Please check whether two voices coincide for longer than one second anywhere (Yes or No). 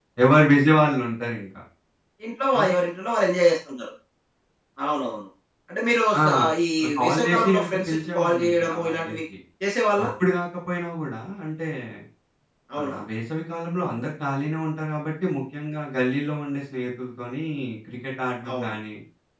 Yes